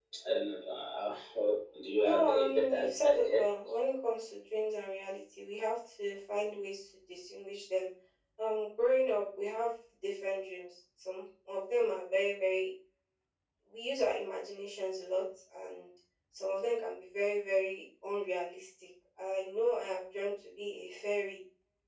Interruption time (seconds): 2.0 s

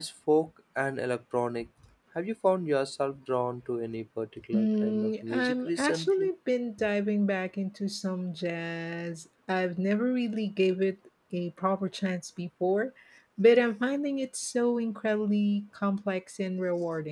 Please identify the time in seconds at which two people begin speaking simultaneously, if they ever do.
4.5 s

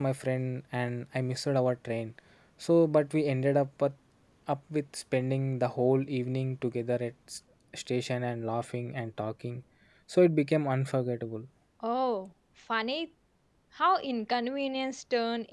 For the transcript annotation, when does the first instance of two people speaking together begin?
none

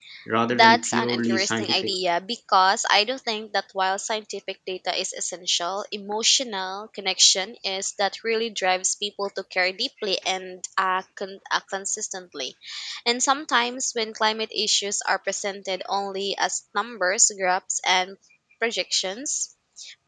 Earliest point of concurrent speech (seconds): 0.6 s

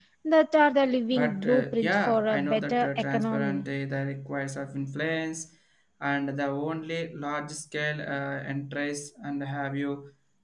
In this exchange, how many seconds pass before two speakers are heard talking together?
1.1 s

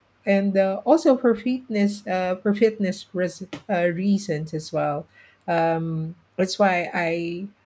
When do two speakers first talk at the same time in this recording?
none

